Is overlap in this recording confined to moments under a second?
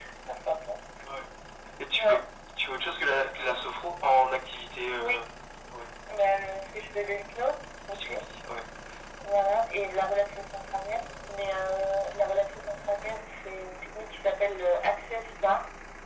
Yes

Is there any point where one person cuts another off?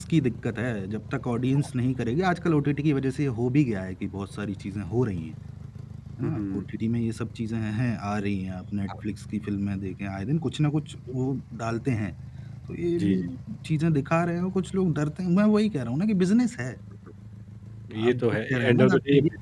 Yes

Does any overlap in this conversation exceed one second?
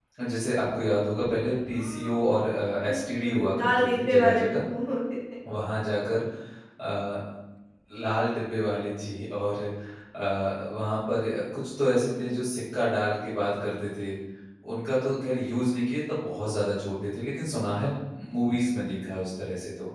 Yes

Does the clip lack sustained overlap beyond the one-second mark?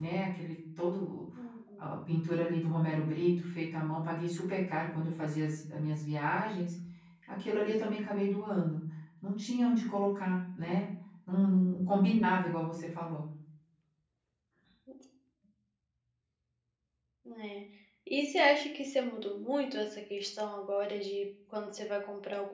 Yes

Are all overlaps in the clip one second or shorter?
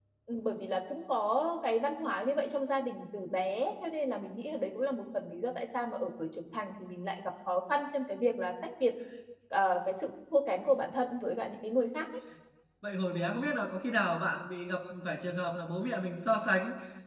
Yes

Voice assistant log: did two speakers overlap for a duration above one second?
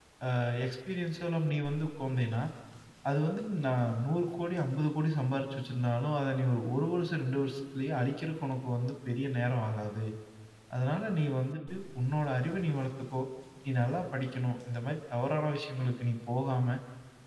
No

